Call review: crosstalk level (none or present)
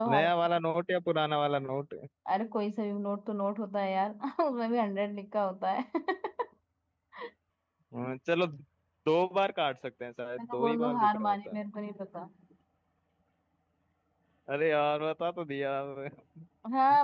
present